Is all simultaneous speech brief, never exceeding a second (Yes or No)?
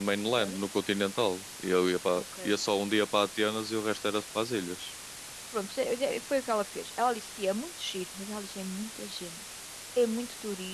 Yes